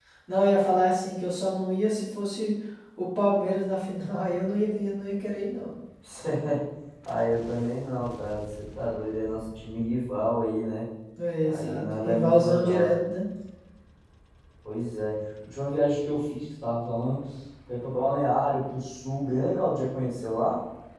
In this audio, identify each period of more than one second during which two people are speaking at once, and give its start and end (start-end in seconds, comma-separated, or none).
11.4-12.9